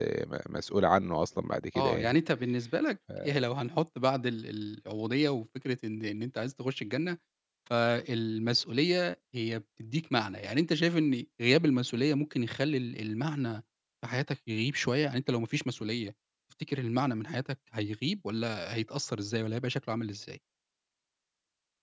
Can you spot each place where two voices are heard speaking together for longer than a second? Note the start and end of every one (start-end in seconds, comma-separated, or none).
none